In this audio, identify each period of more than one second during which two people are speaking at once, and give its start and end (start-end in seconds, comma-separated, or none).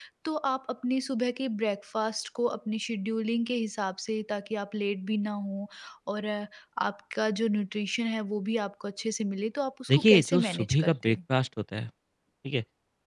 9.9-11.2